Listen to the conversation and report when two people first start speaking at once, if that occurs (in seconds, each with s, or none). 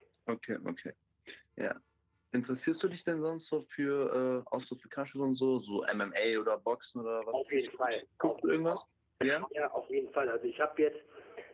7.3 s